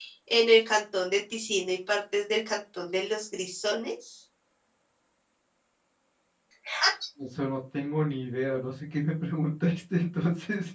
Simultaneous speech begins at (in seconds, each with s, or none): none